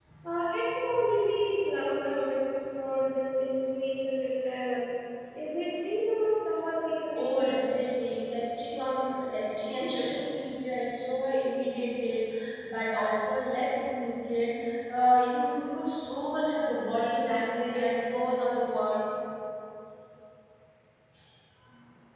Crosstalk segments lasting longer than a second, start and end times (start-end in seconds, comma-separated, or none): none